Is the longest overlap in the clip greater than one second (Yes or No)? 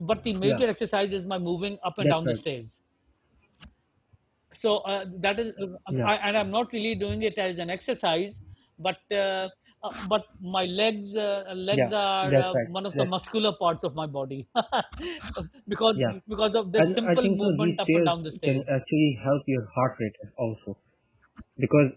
Yes